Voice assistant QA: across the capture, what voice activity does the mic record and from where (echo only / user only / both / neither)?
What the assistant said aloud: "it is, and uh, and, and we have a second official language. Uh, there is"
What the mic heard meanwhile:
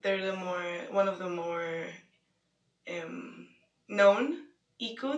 user only